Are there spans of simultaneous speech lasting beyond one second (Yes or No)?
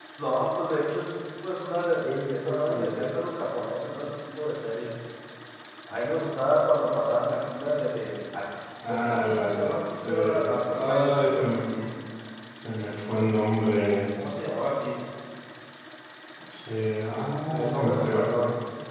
Yes